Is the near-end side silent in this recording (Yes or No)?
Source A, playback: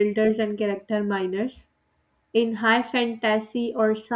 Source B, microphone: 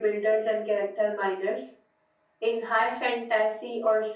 Yes